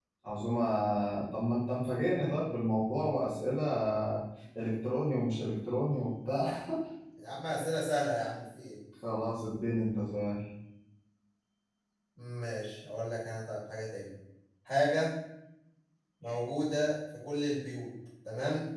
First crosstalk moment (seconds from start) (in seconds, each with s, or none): none